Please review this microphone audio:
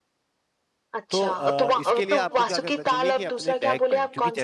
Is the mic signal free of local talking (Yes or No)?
No